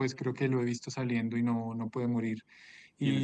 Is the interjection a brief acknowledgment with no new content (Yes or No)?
Yes